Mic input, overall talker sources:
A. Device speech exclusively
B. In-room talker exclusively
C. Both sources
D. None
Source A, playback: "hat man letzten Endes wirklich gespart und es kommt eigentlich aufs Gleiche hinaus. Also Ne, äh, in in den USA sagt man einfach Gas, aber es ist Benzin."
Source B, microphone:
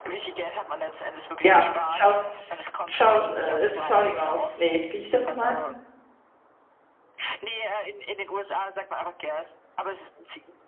C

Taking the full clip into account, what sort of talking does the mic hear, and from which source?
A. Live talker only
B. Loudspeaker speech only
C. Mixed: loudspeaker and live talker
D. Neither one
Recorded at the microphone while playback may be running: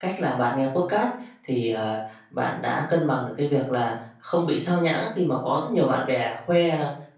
A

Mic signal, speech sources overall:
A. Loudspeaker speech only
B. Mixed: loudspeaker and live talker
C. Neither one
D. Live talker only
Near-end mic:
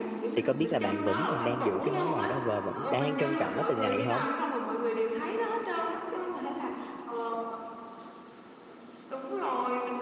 B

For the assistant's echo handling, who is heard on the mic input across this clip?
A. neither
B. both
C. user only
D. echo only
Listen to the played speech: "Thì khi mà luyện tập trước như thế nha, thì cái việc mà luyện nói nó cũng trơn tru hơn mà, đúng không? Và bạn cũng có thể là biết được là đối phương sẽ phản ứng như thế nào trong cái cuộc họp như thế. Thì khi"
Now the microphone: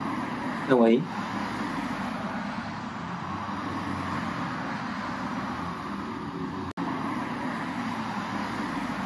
C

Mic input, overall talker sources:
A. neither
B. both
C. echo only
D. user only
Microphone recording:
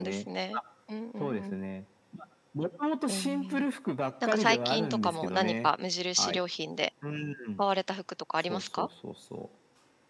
B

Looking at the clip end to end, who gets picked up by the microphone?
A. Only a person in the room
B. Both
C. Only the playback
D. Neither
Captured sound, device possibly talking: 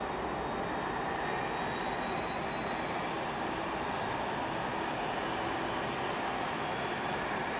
D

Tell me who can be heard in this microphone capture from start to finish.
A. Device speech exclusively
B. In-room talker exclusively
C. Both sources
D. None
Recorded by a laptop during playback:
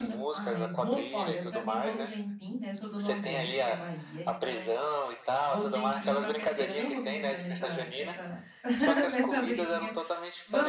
C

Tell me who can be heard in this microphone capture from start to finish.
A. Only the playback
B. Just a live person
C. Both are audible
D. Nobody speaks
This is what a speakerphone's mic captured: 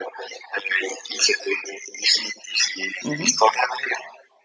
C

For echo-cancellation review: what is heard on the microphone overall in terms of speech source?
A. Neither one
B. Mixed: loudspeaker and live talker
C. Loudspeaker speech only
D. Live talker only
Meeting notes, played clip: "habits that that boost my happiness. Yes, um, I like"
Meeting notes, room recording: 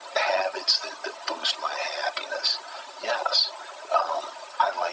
C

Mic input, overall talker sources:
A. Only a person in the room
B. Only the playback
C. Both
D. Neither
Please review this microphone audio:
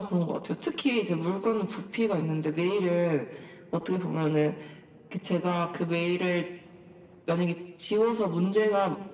B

